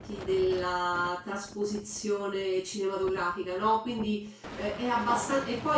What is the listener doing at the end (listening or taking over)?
listening